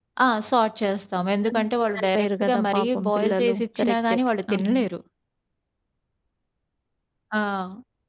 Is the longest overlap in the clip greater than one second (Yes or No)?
Yes